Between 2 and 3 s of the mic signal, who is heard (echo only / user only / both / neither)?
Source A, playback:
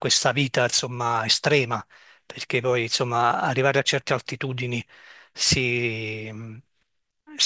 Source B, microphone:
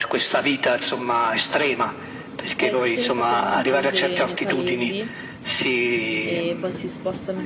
both